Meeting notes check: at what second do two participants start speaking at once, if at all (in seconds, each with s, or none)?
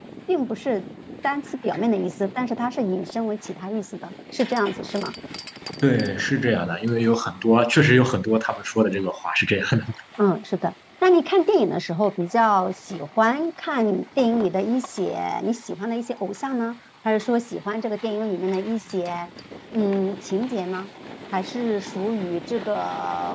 none